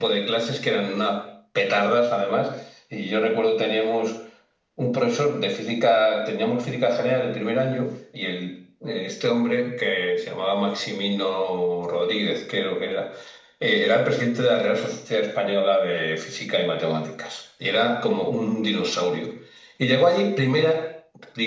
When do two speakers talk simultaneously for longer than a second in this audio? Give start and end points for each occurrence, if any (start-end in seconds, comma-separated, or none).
none